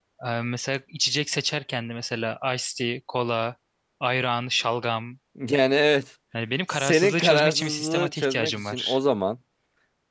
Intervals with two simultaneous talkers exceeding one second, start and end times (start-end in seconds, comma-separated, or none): 6.7-9.0